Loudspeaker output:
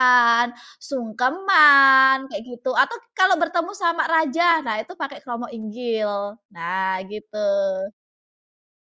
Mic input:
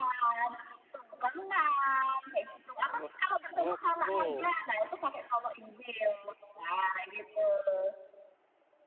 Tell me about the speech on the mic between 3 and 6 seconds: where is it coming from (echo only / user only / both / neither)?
both